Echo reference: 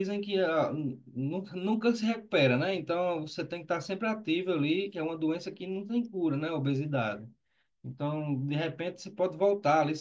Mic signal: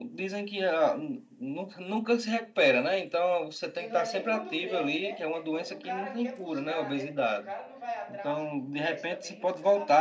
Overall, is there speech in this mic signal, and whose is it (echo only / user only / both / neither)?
both